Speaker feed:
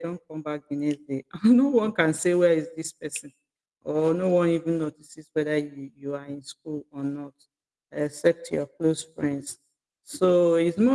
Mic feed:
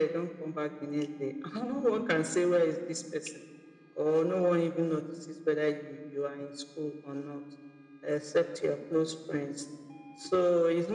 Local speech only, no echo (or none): none